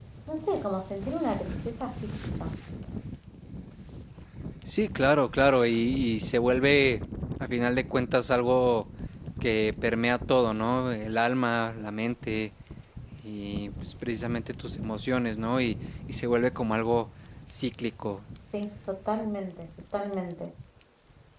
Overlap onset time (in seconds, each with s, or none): none